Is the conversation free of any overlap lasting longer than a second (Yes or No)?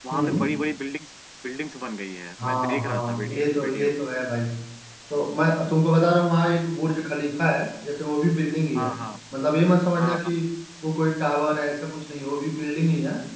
No